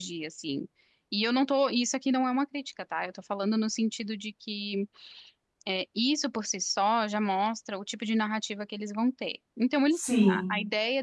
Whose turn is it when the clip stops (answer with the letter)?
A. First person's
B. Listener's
A